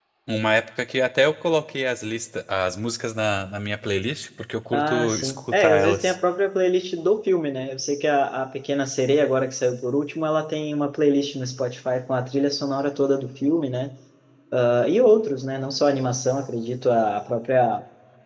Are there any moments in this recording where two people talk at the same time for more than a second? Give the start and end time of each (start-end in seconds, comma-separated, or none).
4.7-6.2